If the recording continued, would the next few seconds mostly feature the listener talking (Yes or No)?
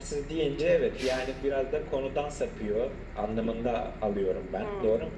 Yes